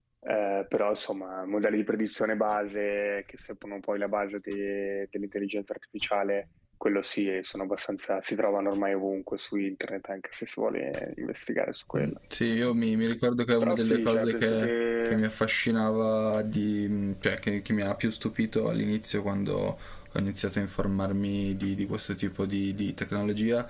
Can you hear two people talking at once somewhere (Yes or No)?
Yes